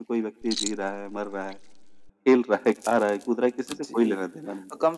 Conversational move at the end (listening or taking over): taking over